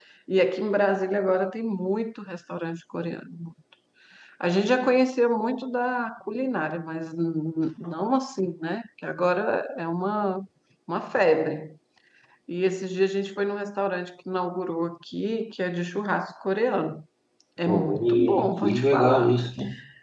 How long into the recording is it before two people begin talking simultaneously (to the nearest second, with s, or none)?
18 s